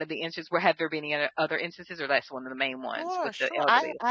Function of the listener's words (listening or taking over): taking over